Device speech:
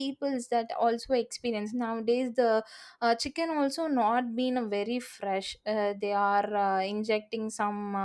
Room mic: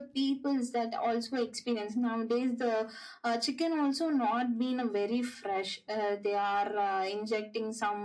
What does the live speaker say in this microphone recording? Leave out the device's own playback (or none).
none